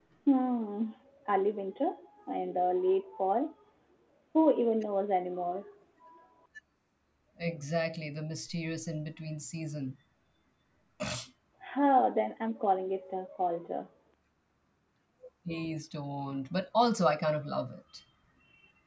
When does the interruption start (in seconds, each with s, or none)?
none